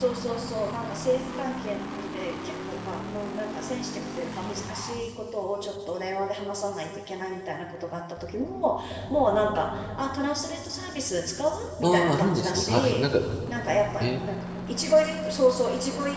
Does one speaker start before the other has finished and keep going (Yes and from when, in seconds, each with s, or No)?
Yes, from 11.8 s